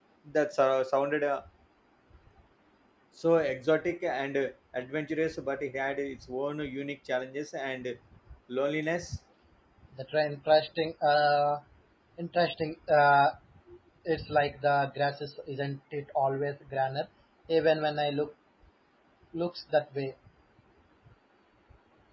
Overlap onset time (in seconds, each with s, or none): none